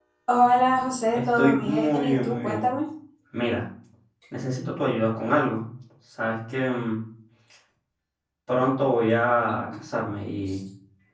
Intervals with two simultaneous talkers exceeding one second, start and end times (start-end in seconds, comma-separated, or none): 1.1-2.7